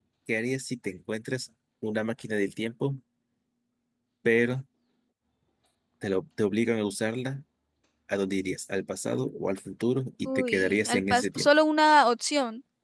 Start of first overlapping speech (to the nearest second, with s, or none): 10 s